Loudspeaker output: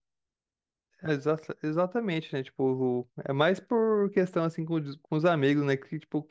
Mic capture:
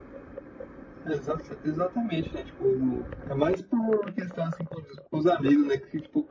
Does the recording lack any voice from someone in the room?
Yes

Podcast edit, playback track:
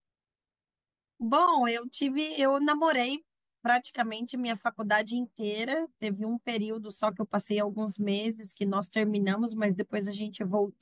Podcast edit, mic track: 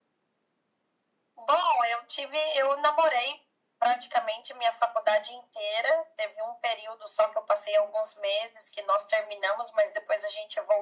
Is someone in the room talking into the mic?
No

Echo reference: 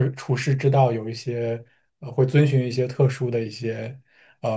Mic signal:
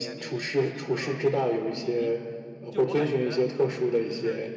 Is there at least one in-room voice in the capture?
Yes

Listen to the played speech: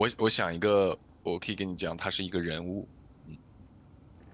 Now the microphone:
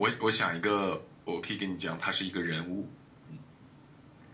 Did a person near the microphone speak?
No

